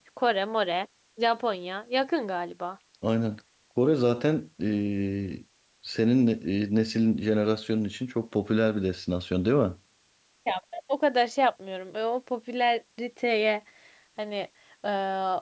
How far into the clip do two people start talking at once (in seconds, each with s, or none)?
none